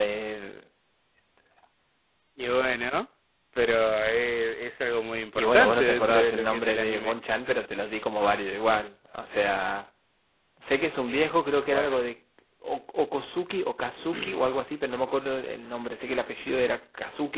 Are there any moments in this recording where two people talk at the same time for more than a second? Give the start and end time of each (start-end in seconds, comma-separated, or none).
5.3-7.2